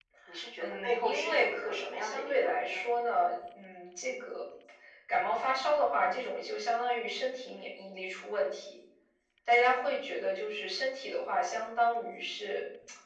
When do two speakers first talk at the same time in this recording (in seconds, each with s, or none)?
0.6 s